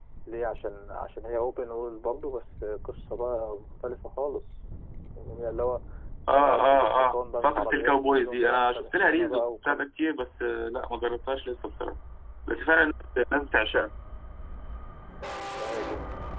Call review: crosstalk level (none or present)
present